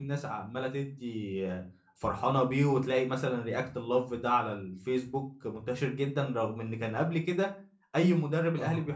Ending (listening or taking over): listening